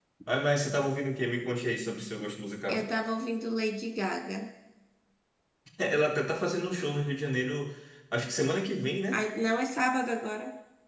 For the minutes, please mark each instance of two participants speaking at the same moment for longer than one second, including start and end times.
none

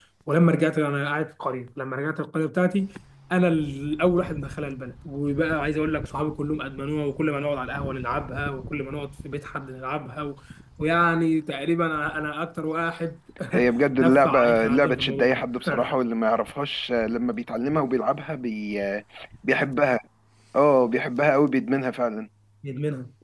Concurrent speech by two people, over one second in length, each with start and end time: 14.0-15.3

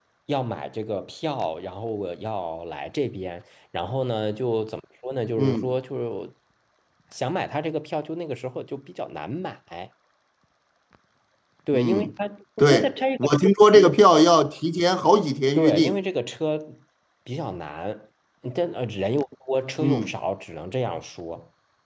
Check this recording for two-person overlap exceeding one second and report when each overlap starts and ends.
12.6-14.0

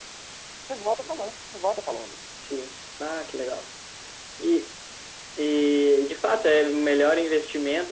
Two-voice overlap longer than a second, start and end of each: none

